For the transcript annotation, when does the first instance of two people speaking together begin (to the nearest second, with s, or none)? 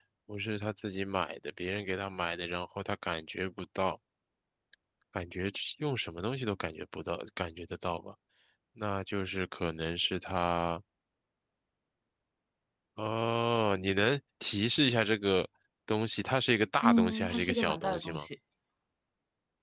17 s